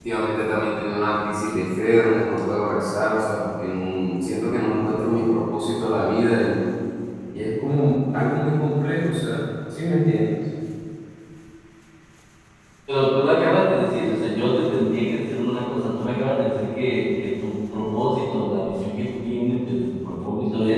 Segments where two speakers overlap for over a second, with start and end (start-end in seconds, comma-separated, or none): none